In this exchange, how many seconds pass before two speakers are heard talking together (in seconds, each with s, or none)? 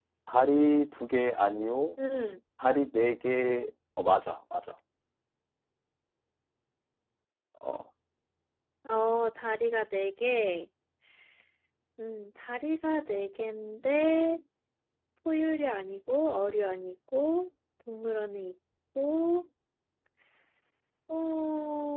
none